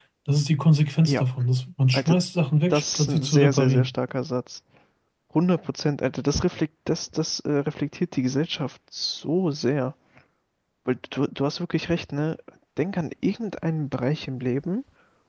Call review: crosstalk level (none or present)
present